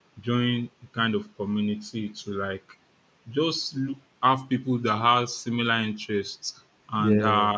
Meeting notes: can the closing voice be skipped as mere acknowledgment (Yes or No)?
Yes